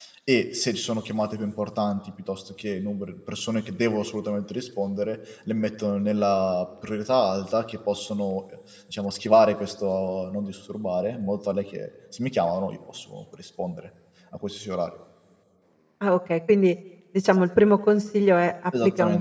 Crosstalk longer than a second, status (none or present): none